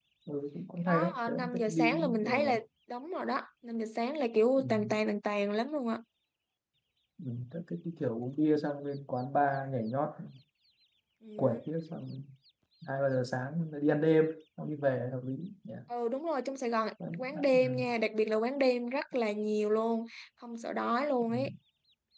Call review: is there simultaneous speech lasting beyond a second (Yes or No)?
Yes